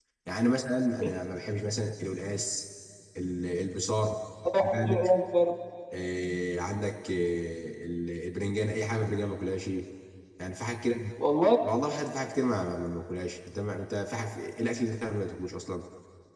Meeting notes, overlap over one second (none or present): none